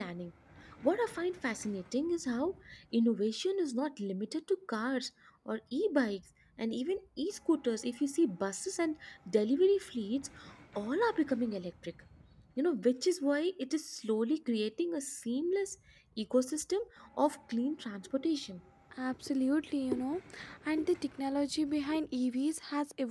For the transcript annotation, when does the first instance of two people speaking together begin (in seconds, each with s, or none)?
none